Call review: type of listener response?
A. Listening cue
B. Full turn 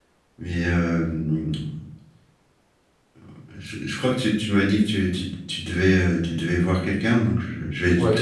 B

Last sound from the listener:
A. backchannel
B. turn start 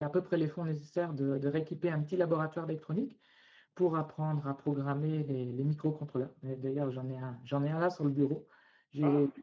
A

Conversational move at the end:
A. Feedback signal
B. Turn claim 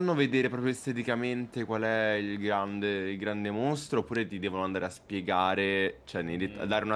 A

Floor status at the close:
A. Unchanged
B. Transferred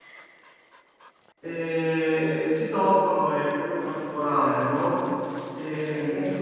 A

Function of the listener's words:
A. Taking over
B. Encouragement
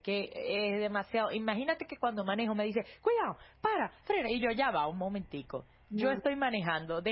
B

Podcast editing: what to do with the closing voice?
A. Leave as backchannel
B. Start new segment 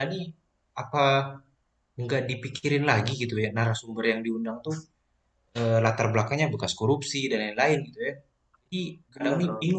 A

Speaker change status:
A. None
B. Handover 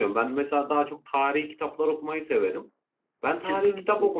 A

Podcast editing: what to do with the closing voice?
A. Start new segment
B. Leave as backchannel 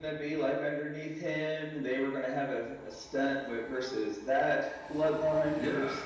A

